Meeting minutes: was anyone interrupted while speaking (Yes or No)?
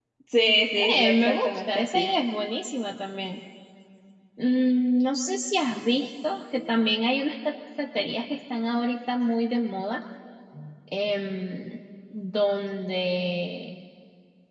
Yes